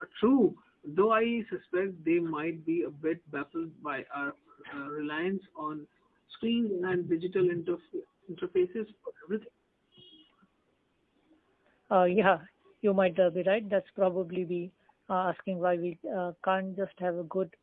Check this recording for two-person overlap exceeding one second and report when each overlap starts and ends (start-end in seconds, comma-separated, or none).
none